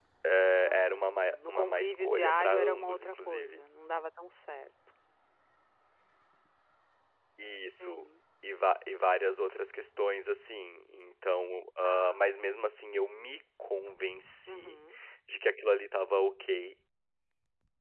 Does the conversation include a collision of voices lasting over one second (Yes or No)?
Yes